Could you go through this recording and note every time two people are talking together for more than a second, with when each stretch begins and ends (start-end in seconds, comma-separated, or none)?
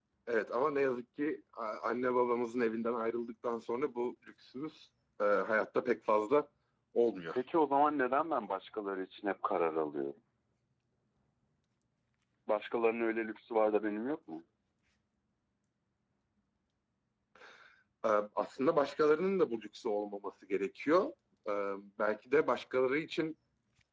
none